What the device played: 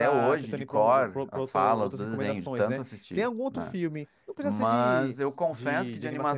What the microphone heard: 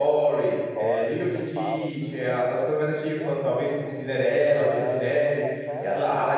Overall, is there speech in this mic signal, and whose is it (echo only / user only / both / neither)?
both